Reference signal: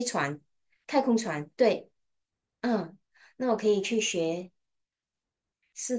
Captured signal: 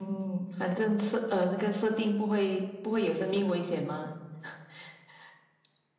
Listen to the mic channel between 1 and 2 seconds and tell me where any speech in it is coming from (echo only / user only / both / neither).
user only